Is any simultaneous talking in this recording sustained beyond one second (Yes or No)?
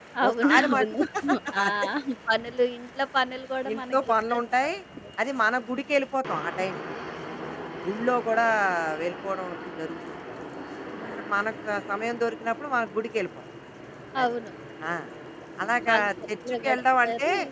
Yes